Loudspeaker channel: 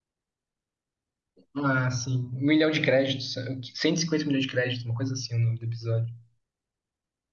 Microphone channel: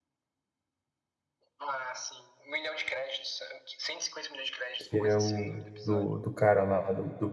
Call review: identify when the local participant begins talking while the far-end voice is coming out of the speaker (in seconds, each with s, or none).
4.8 s